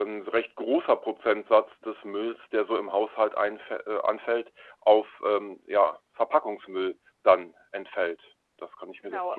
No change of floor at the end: No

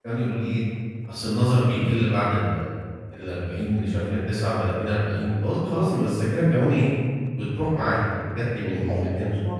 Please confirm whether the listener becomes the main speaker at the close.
Yes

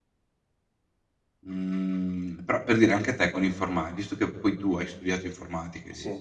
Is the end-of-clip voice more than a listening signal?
No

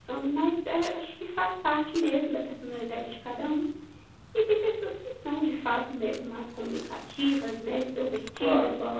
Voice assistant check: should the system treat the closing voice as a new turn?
No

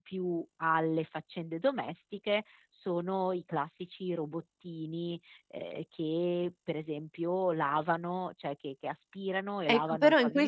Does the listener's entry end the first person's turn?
Yes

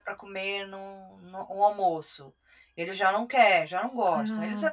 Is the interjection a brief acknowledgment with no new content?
Yes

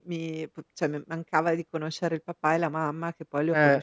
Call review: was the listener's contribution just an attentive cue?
Yes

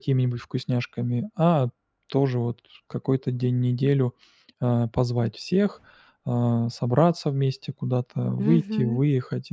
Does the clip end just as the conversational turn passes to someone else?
No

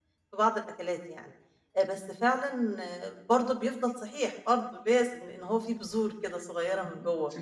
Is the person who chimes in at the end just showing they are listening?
No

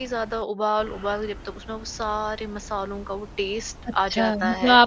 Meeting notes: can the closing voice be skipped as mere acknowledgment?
No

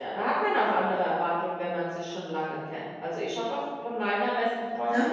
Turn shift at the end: No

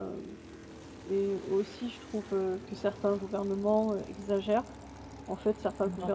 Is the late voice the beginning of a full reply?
No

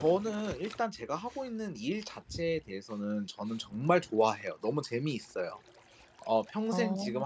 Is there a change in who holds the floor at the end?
No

